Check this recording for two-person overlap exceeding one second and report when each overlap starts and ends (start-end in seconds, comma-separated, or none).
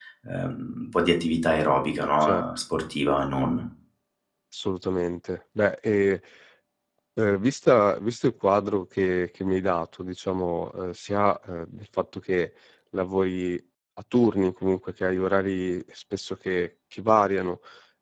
none